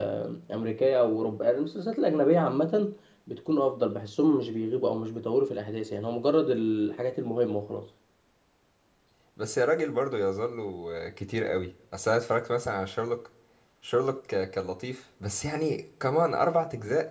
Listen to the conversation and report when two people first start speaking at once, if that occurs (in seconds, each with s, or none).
none